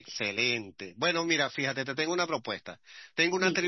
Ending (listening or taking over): listening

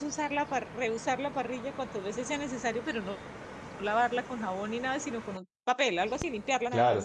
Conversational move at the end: taking over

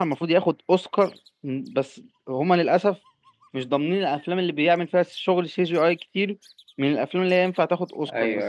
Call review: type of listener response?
taking over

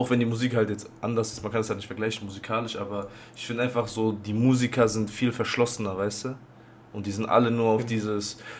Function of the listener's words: listening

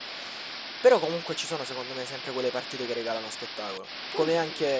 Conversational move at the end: listening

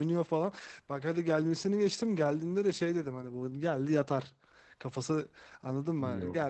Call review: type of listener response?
listening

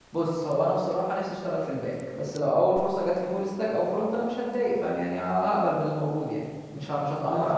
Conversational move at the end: taking over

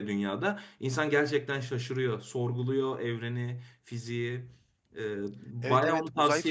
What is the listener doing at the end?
taking over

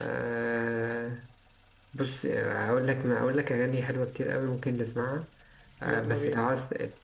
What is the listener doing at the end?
listening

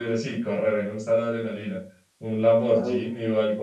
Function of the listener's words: listening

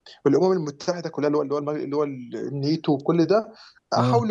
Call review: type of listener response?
listening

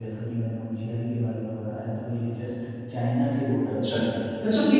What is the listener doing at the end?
taking over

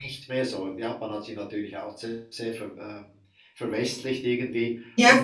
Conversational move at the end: listening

